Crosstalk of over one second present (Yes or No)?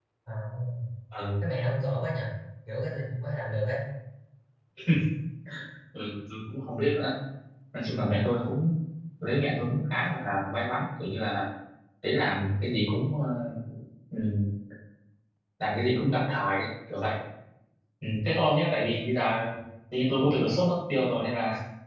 No